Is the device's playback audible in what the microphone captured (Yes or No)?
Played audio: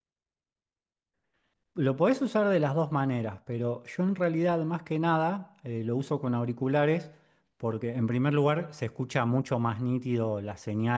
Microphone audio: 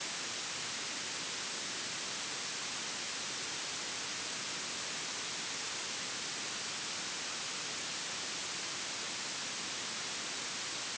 No